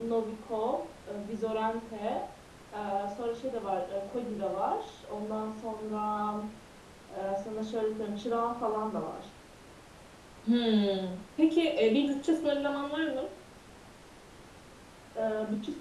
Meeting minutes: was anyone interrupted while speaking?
No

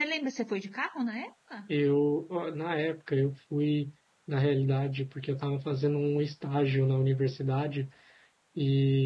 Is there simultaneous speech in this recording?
No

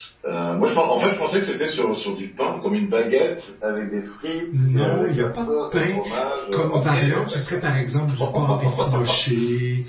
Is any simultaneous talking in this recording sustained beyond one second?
Yes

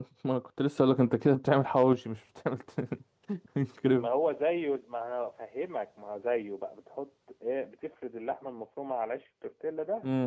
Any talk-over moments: No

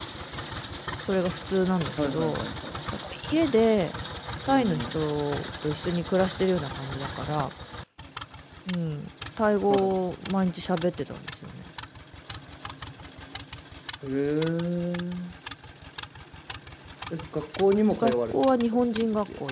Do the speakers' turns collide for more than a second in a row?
Yes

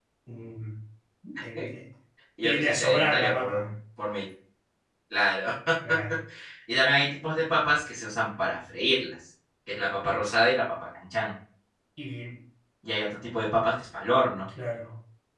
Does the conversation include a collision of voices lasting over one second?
Yes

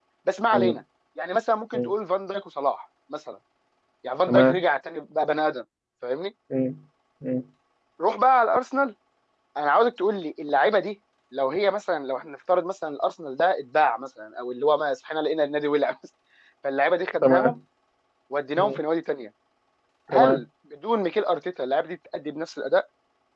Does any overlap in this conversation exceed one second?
No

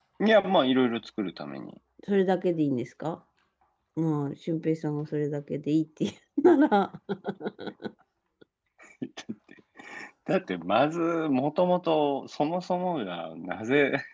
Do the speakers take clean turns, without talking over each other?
Yes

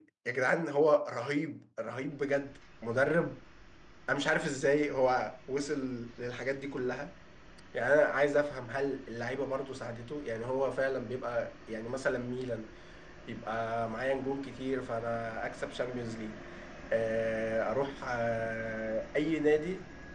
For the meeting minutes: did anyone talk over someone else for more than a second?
No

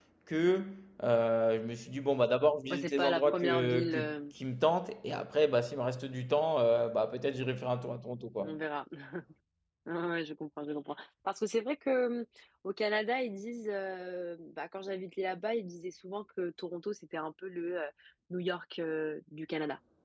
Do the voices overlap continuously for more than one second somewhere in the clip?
Yes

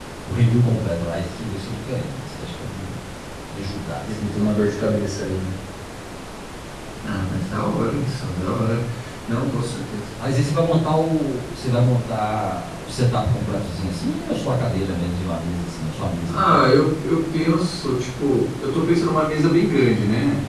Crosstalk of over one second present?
No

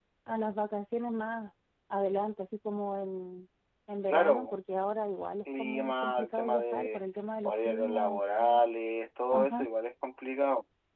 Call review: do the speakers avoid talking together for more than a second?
No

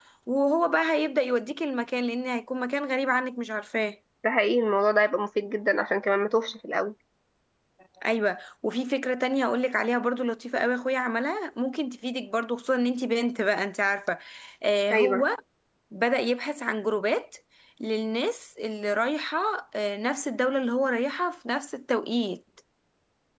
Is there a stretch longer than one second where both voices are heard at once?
No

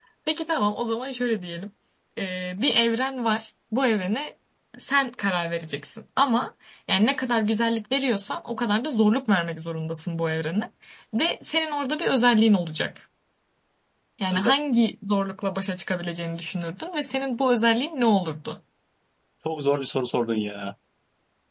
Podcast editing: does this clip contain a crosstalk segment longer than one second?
No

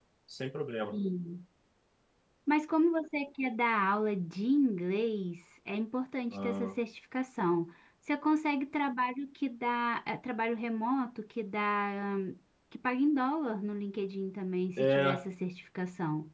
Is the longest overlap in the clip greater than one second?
No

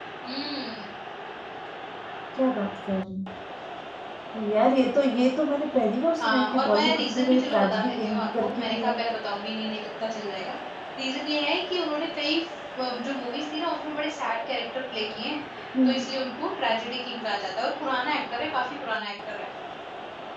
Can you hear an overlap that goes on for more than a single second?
Yes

